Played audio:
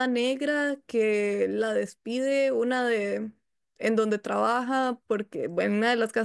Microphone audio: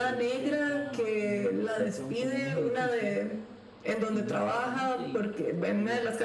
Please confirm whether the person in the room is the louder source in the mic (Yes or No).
No